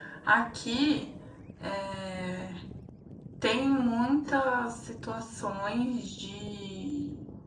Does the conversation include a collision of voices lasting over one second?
No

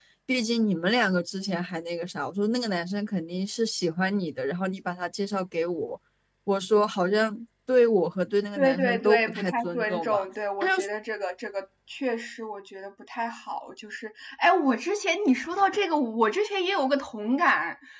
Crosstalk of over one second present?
Yes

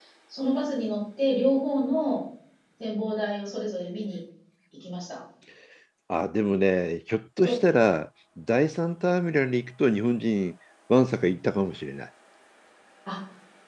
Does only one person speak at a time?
Yes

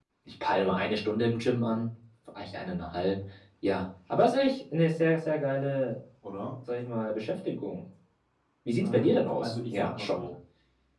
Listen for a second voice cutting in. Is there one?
Yes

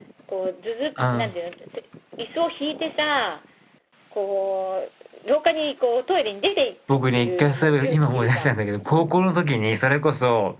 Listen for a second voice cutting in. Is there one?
Yes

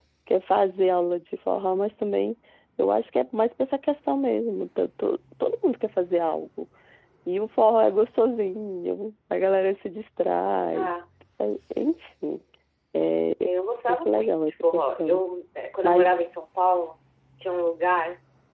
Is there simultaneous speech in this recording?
Yes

